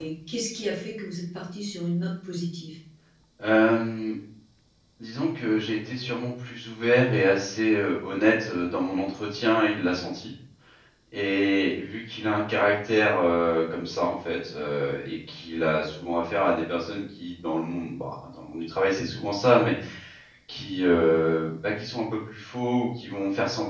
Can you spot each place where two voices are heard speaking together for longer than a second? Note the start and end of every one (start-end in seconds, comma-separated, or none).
none